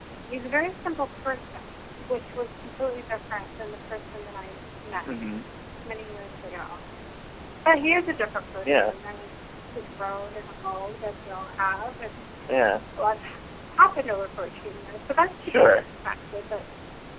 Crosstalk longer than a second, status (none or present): none